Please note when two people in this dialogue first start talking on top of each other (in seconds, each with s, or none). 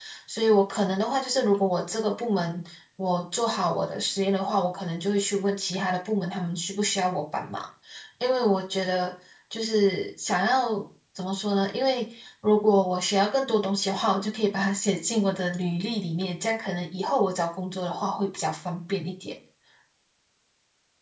none